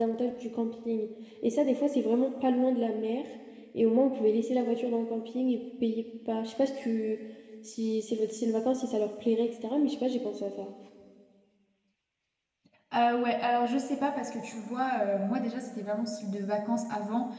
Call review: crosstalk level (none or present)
none